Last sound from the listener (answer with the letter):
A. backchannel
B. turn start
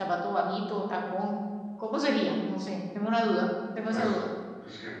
B